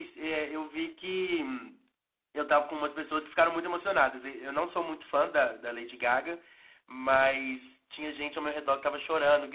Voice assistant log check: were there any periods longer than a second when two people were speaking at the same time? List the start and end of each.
none

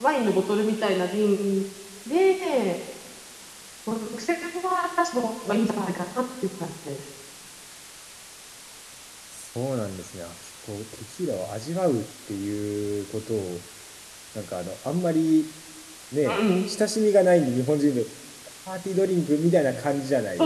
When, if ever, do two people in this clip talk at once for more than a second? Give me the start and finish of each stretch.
none

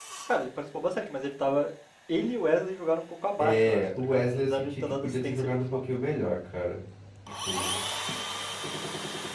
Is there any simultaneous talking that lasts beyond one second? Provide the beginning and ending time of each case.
3.4-5.8

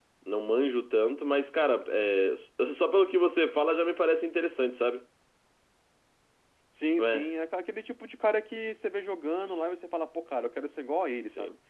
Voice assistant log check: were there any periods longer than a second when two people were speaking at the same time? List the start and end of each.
none

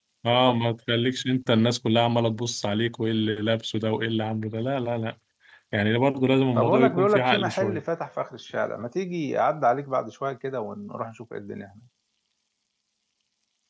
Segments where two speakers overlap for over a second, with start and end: 6.6-7.8

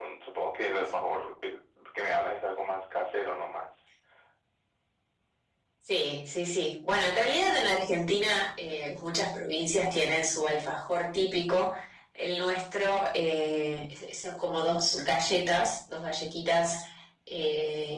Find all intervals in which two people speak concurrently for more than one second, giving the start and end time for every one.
none

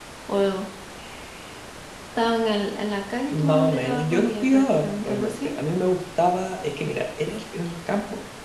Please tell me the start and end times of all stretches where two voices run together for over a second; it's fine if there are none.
3.3-5.5

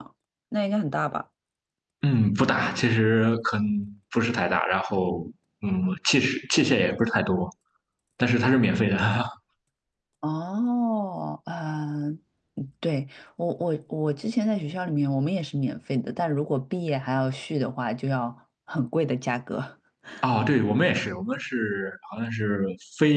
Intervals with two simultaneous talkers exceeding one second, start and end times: none

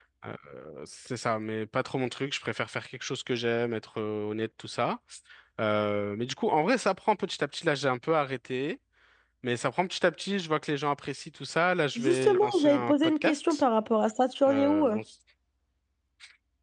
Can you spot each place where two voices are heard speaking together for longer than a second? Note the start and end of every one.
11.9-13.6

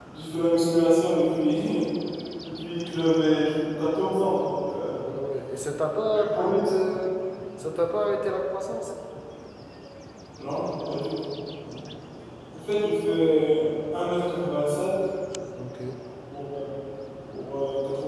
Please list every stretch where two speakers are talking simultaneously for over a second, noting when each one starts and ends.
none

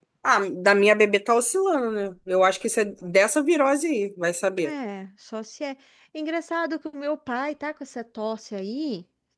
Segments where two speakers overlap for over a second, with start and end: none

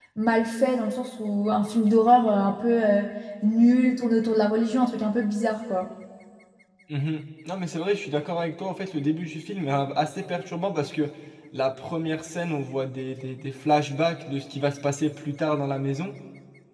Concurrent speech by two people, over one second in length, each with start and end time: none

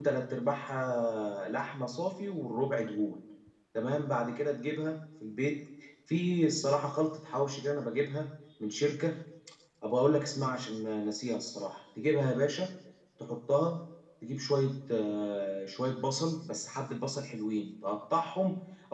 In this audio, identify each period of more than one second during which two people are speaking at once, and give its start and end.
none

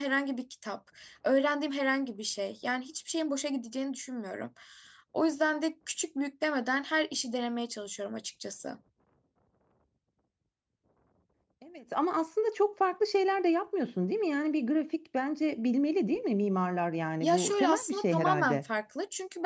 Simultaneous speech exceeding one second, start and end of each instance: 17.2-18.6

